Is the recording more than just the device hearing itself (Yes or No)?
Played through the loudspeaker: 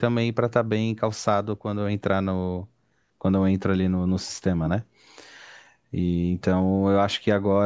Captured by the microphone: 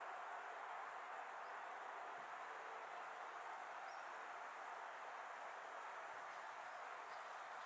No